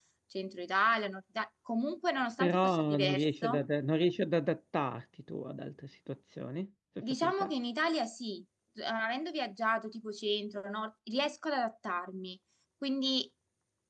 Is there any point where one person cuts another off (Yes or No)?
Yes